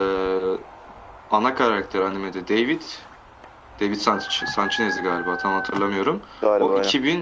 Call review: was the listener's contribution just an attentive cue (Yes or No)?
Yes